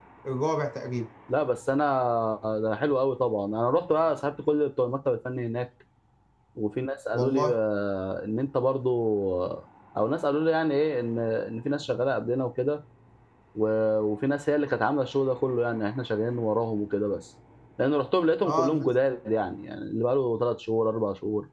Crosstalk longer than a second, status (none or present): none